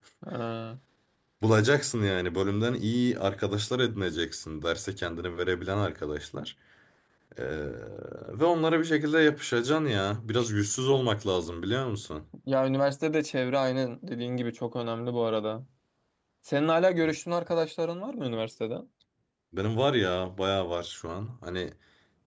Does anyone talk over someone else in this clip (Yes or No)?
No